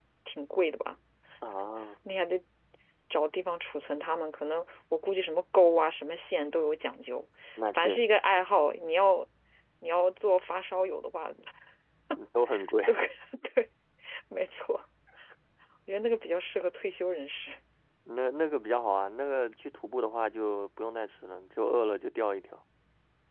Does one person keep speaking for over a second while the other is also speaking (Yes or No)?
No